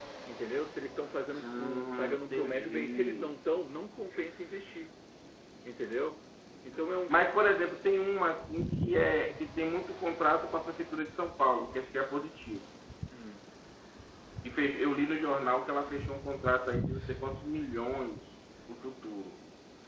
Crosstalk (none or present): present